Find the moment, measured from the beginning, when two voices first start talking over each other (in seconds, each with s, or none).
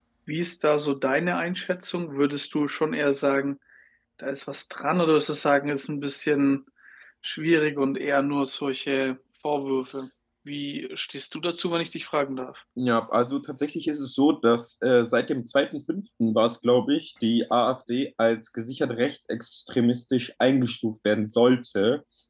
none